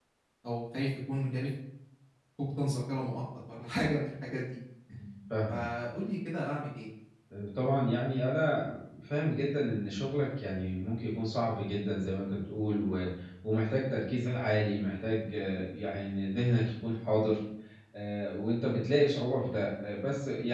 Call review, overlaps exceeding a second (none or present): none